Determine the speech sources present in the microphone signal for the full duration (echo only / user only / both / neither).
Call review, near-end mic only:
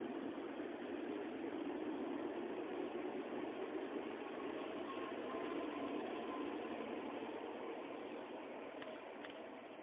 neither